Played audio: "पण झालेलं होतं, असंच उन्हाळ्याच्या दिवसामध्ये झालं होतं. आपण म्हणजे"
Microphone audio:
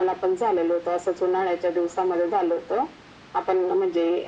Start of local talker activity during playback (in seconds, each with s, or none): none